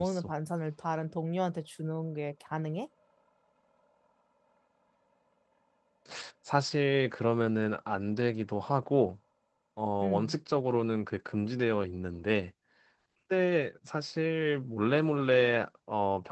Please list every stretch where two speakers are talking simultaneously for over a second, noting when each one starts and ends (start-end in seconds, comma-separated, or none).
none